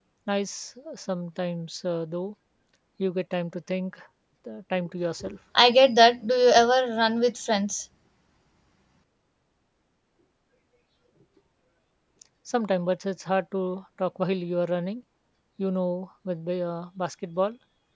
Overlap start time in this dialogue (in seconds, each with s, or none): none